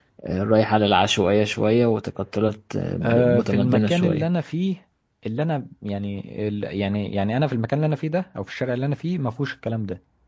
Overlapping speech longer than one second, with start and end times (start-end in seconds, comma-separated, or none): 3.0-4.3